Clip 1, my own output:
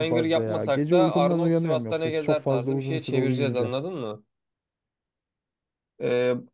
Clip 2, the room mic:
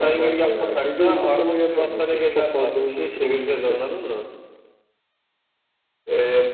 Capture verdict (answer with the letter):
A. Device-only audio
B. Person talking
A